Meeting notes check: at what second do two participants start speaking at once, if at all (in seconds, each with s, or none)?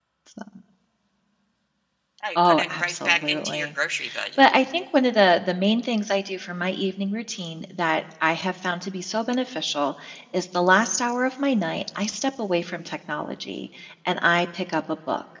2.4 s